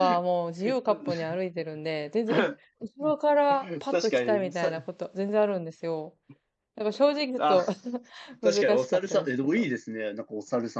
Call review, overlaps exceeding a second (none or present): present